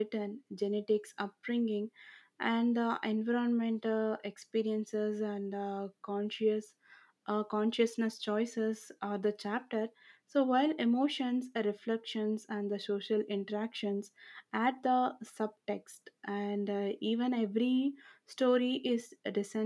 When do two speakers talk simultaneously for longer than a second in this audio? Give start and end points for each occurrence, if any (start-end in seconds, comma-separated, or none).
none